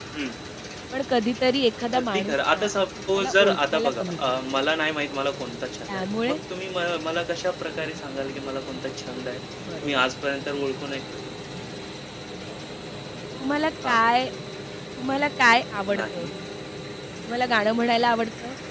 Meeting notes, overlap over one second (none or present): present